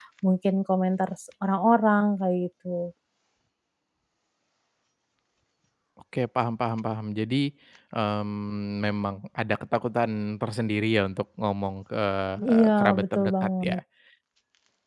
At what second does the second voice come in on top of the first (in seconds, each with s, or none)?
12.5 s